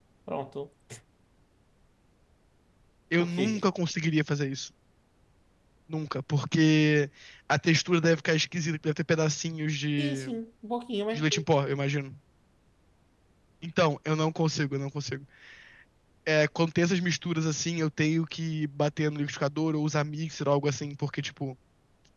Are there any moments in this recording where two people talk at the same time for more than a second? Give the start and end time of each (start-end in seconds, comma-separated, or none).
none